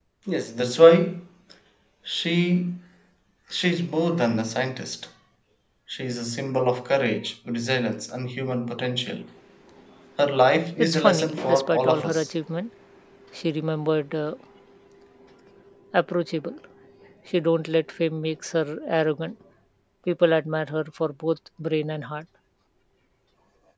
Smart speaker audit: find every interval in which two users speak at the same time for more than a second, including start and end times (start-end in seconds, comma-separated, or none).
10.8-12.3